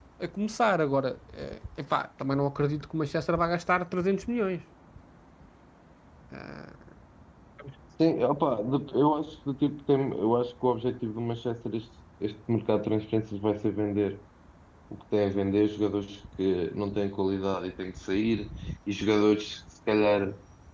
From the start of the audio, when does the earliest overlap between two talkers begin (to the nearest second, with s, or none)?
none